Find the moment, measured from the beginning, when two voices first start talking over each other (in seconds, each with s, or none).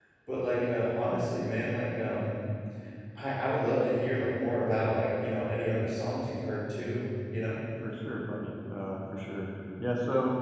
none